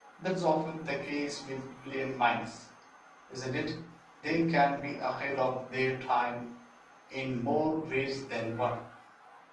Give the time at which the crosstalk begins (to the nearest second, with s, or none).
none